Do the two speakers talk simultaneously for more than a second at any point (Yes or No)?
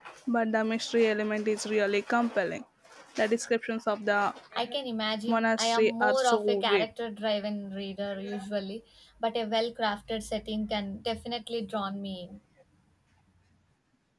Yes